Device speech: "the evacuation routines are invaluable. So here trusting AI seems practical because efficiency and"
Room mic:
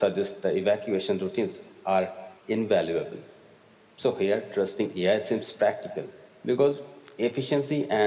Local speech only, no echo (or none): none